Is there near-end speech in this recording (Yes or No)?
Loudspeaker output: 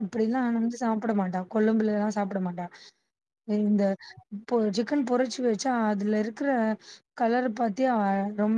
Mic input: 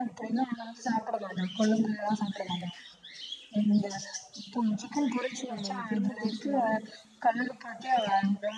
Yes